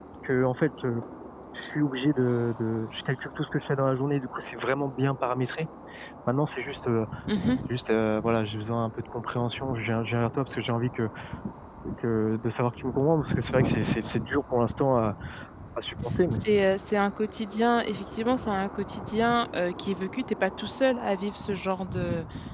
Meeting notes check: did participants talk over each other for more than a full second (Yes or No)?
No